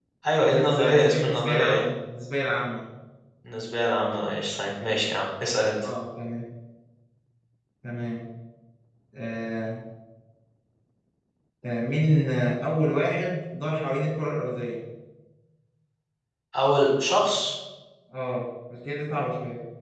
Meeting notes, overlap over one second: present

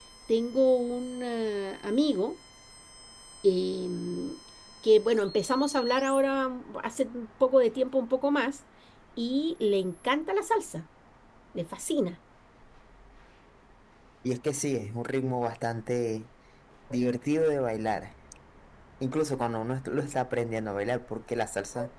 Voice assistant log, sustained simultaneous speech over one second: none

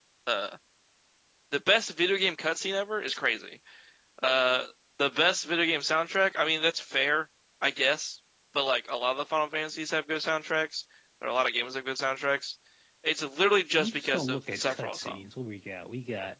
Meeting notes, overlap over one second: present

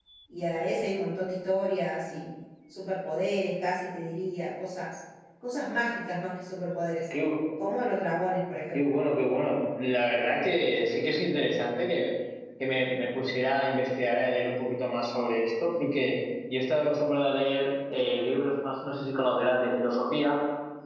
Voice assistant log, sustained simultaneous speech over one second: none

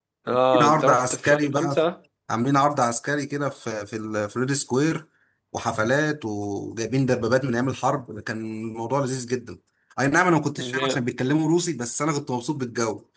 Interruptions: present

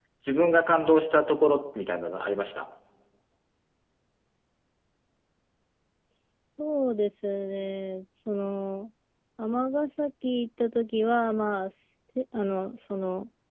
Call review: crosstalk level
none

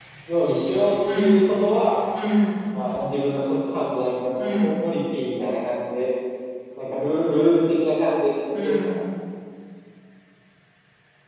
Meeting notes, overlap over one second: none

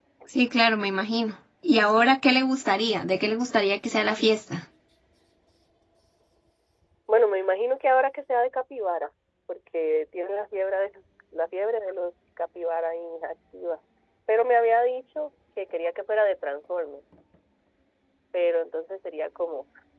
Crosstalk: none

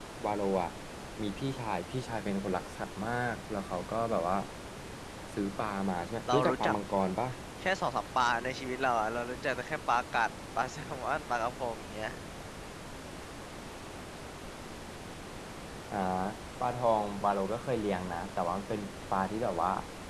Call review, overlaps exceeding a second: none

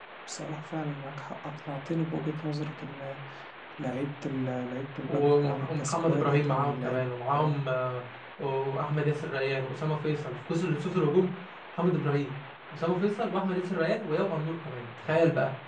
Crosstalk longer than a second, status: present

